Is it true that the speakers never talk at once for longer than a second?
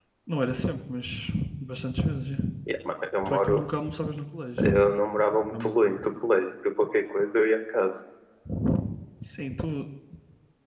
Yes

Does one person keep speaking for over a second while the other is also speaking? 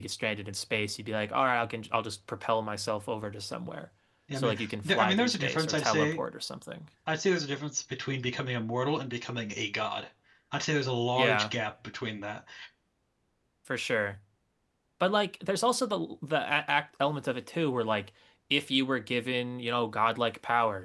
Yes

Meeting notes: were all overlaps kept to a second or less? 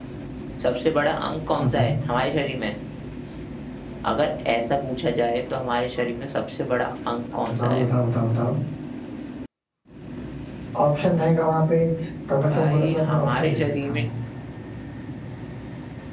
No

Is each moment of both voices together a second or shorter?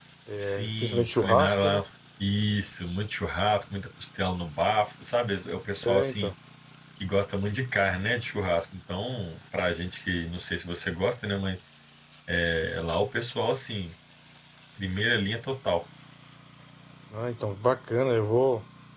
No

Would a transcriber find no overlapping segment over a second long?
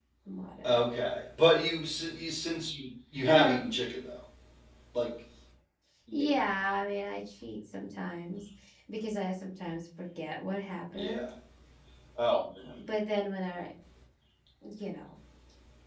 Yes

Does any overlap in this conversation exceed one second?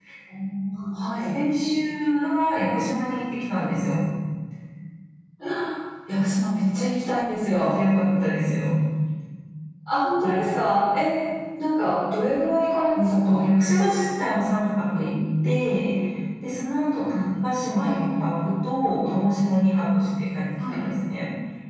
No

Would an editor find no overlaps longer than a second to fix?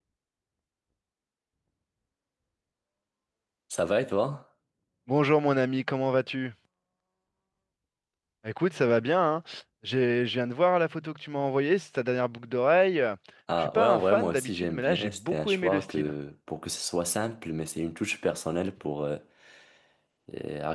No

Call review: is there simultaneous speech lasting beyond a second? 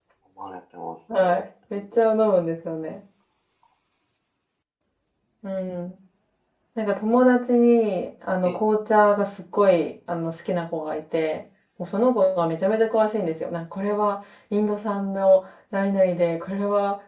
No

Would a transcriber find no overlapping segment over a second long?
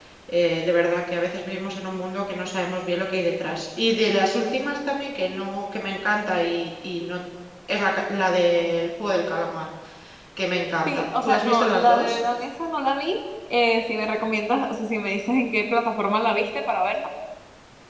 No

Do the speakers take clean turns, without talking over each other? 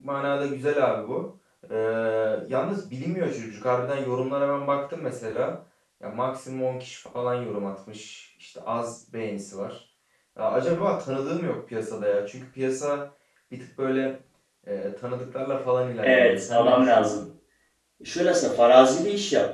No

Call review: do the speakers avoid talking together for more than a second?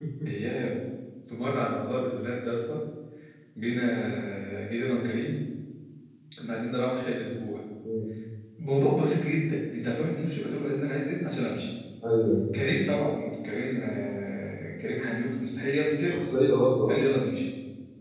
Yes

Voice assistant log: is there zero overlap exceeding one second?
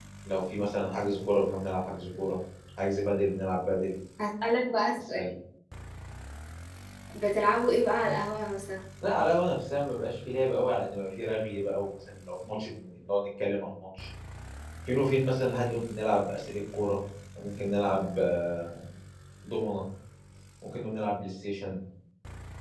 Yes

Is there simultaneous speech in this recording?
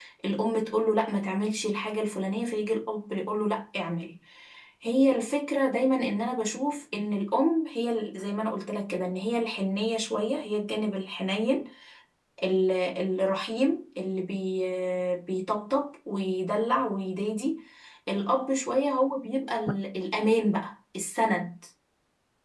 No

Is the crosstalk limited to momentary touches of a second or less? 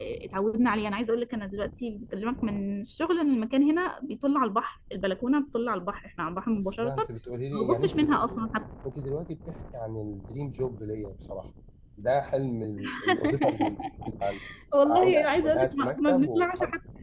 No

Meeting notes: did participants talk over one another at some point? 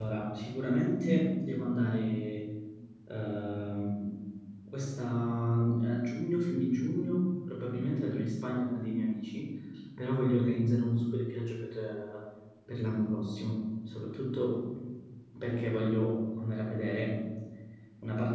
No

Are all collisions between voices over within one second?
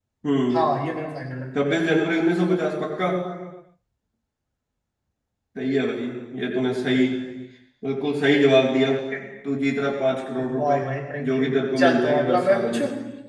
No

